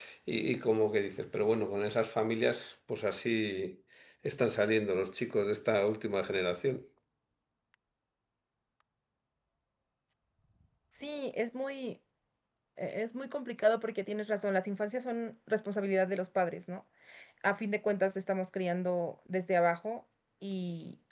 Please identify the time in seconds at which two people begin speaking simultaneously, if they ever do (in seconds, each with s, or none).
none